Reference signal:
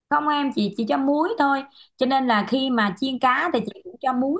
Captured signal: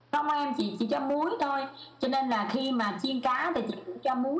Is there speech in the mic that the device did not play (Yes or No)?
No